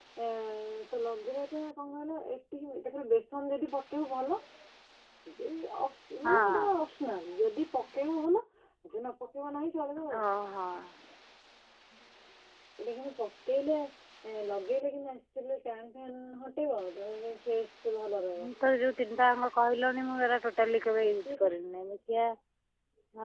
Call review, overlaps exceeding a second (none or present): none